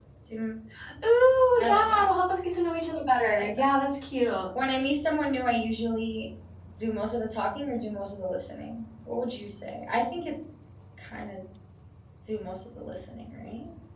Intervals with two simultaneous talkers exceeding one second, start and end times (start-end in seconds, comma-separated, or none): none